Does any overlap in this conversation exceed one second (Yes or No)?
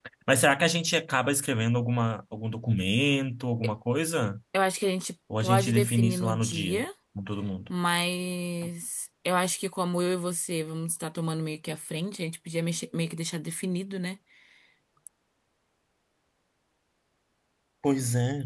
Yes